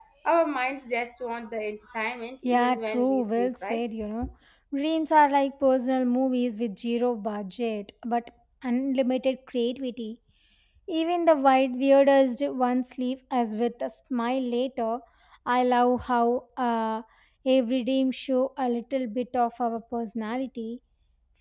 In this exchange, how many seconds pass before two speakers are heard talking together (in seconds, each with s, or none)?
2.4 s